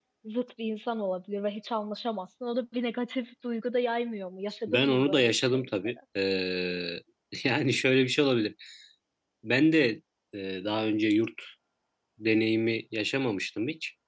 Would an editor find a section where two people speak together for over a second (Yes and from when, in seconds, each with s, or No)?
Yes, from 4.7 s